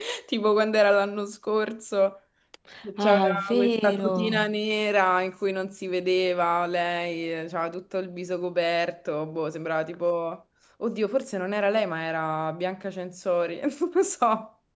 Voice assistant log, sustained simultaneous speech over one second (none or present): present